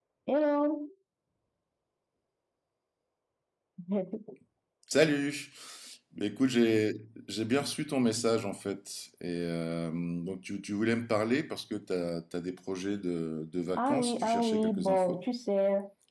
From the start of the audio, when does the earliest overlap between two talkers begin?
13.8 s

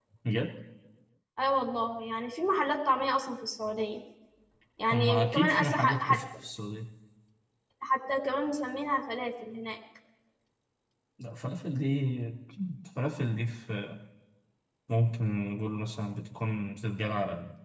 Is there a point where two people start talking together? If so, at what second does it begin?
4.9 s

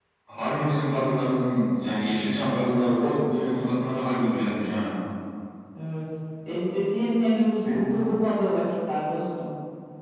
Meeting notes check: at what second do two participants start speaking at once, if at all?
none

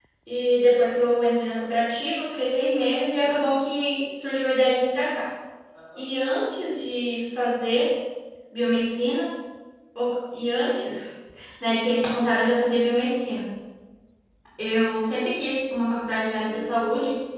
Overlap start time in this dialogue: none

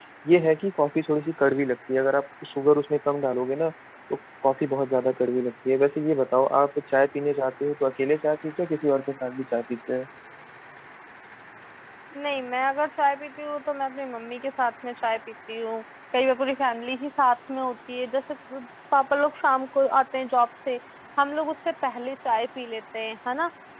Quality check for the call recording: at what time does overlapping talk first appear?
none

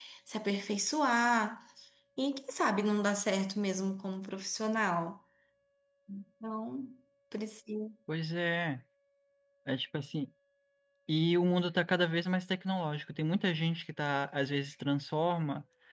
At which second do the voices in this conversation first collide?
none

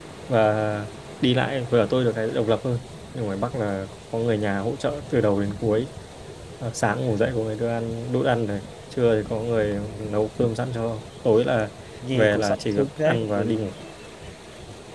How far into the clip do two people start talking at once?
12.1 s

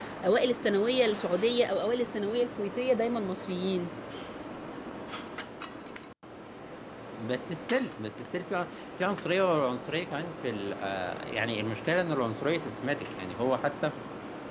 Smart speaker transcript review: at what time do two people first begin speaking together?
none

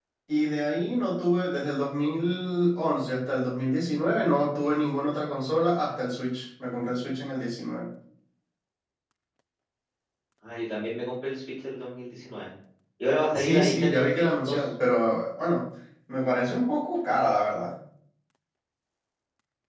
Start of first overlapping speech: 13.3 s

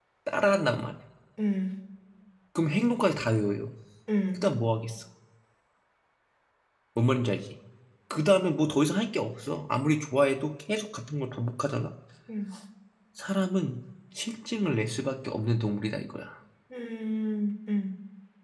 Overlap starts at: none

